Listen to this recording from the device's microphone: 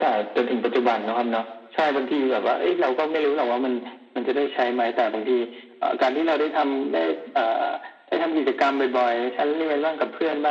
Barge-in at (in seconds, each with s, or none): none